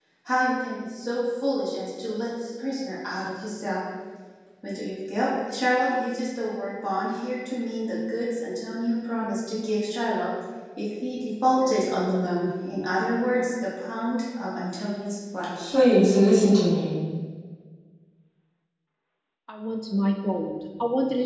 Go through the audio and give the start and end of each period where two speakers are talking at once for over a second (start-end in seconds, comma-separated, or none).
none